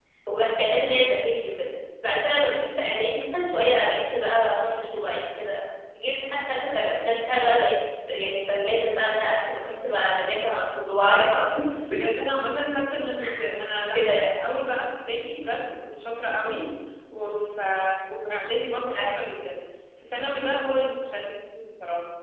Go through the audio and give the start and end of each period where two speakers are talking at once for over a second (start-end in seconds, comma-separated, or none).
none